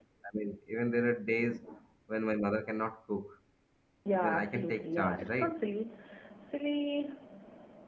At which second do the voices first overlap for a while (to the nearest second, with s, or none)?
4 s